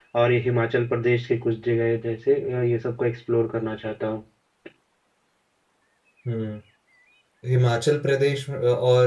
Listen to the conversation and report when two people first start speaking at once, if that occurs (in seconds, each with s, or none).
none